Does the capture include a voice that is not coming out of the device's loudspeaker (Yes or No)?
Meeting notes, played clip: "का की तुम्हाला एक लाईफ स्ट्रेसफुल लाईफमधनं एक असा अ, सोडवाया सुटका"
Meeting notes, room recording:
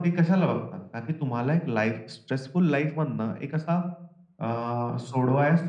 No